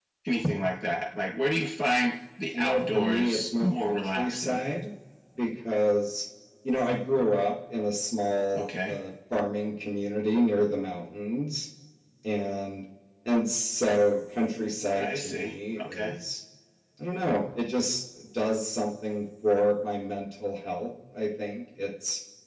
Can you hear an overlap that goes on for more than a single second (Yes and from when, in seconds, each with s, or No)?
Yes, from 2.5 s